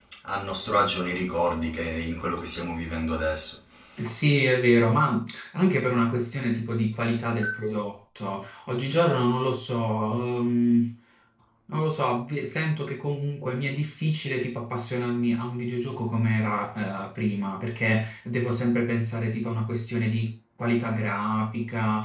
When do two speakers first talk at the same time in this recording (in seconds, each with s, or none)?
none